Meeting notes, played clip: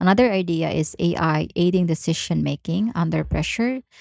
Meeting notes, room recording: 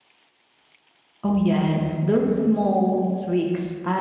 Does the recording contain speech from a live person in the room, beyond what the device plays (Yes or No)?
Yes